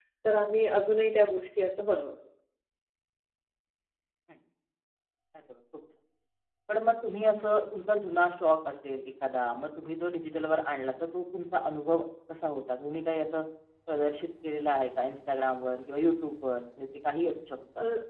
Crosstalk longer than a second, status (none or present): none